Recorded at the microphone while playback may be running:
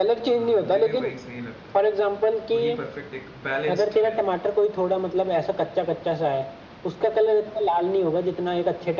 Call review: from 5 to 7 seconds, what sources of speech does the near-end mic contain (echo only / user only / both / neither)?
echo only